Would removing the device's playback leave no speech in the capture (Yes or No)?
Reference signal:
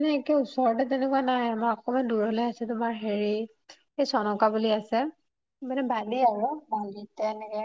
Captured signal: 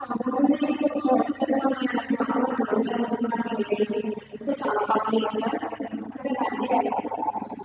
Yes